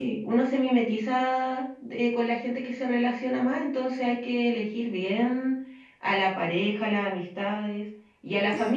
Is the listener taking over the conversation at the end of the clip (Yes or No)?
No